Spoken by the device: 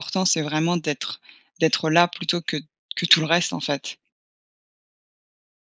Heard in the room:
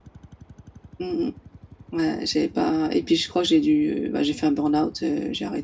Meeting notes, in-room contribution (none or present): present